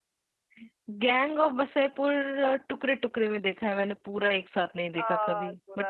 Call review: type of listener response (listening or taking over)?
taking over